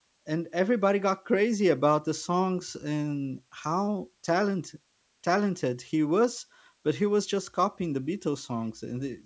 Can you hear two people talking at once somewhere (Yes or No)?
No